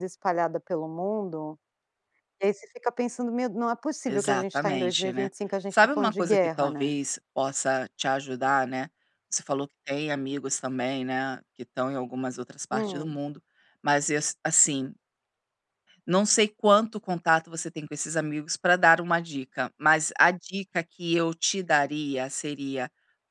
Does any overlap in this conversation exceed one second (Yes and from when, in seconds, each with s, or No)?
Yes, from 4.1 s